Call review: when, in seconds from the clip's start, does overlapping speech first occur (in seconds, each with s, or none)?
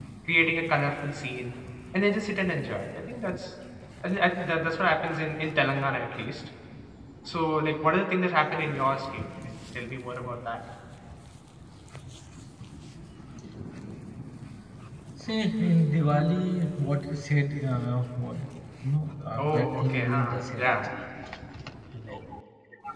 19.4 s